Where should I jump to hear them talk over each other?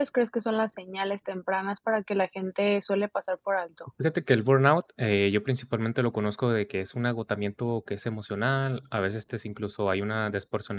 none

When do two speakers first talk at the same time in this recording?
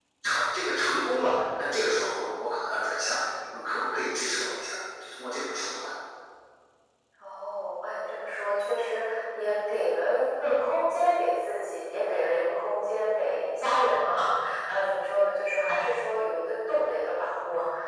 none

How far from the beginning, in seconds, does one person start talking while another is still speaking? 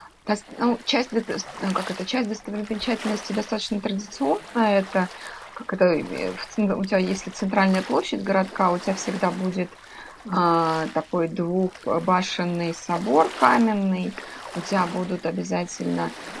none

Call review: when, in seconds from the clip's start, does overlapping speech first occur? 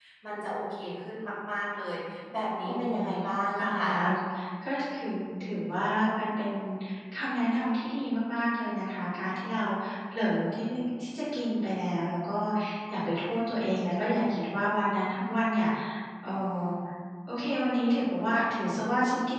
2.6 s

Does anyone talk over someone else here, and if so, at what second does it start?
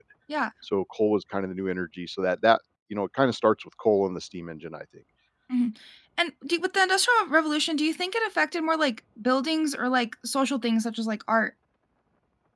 none

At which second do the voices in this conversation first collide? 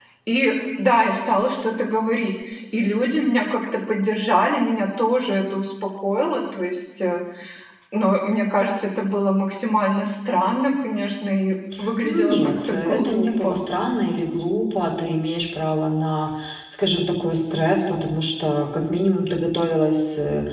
12.0 s

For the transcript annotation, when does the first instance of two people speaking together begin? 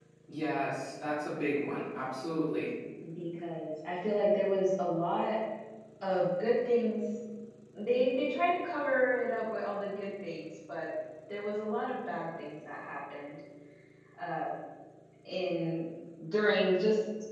none

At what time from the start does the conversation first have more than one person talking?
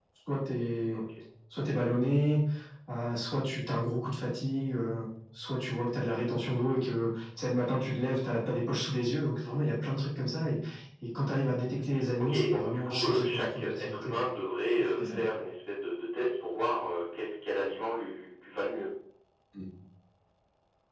12.2 s

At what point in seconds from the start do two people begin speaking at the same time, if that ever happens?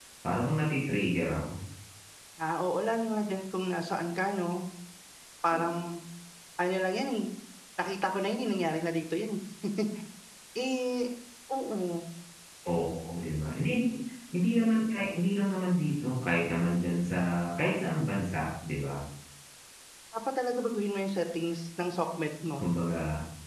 none

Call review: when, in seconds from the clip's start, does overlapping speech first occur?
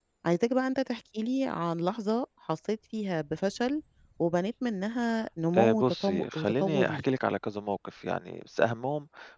5.5 s

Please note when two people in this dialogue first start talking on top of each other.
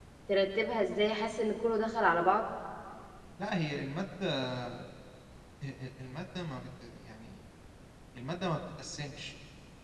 none

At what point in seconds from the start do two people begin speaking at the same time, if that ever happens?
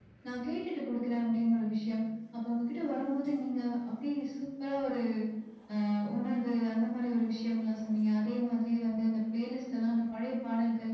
none

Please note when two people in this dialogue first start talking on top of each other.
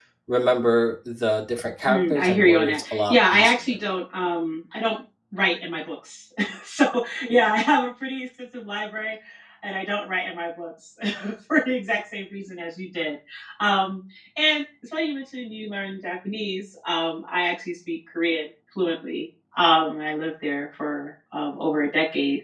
1.9 s

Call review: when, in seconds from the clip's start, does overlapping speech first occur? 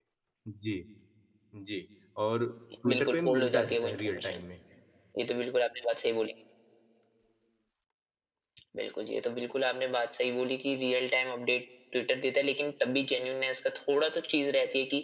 2.9 s

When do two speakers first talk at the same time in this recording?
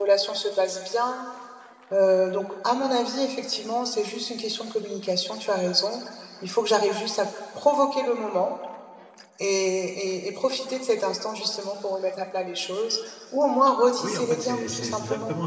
14.0 s

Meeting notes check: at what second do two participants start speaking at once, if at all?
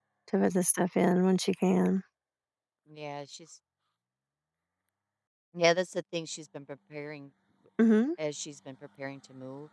none

